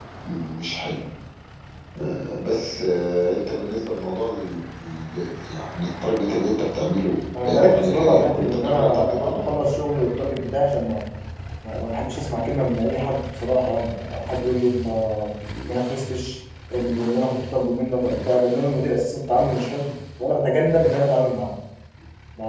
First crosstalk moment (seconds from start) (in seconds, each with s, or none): 7.3 s